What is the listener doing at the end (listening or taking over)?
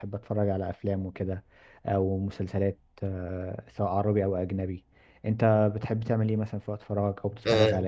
taking over